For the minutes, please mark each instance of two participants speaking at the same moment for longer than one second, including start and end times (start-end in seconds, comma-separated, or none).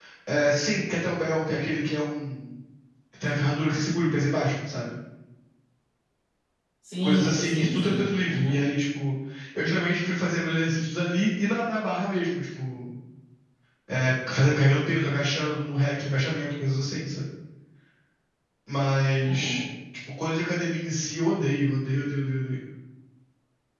7.0-8.6